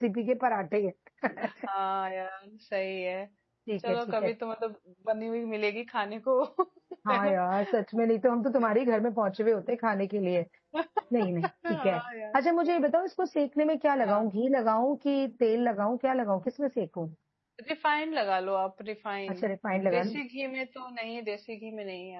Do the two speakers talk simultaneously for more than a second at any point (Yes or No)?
No